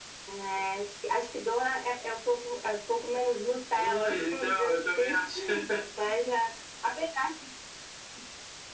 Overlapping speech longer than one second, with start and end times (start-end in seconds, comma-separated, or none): 3.8-5.2